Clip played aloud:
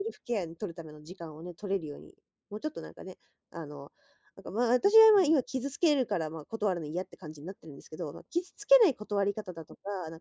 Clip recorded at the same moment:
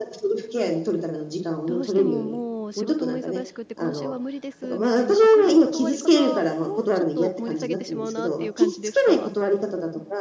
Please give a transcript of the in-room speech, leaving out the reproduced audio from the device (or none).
どうしてももう、仕事も忙しくて今週は無理です、みたいな明るい断り方もちょっと盛り下げてしまうなっていう感じですか？